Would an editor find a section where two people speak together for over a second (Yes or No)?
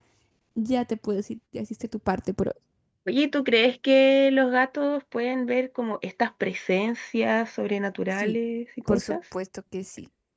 No